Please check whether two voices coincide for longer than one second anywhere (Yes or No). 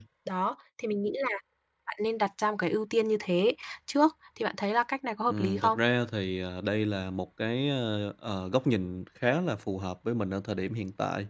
No